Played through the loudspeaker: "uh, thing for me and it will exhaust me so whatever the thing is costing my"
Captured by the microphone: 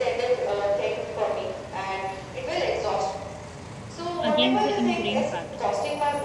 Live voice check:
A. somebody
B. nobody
A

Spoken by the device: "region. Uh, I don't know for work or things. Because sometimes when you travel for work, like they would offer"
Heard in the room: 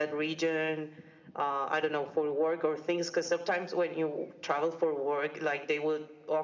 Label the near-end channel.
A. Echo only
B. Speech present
A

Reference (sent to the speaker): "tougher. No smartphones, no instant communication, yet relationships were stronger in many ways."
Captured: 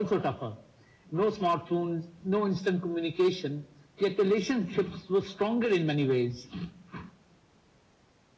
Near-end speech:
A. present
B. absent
B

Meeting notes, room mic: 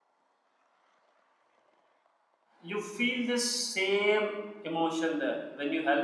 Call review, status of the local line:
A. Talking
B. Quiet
A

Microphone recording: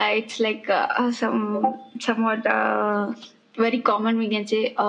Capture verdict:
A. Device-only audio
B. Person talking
A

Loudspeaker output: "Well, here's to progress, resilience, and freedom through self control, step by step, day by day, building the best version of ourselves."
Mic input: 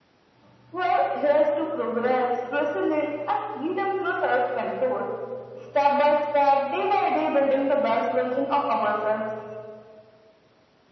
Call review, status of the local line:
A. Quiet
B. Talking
A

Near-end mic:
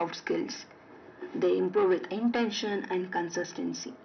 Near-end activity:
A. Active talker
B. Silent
B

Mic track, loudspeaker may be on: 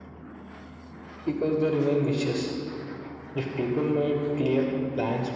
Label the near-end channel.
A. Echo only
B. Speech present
A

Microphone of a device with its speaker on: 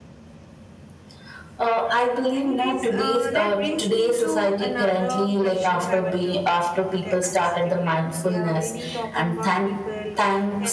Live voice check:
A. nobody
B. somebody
B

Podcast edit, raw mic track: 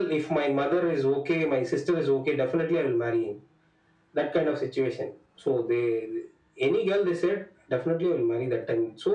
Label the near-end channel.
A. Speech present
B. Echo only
B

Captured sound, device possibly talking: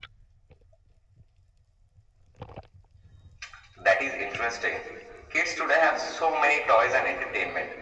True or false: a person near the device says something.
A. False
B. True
A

